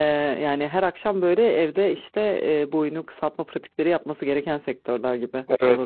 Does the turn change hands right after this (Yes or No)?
Yes